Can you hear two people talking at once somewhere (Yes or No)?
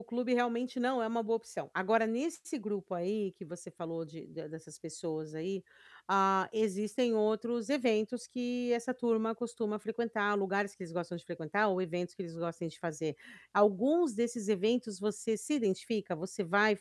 No